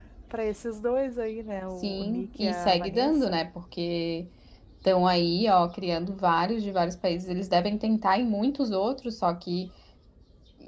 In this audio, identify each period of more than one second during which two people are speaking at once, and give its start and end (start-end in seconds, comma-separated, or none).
1.8-3.4